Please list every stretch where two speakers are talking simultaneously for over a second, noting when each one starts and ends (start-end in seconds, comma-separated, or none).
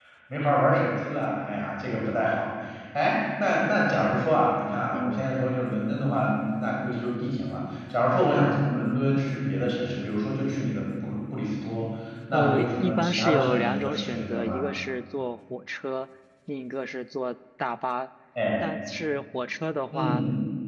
12.3-14.6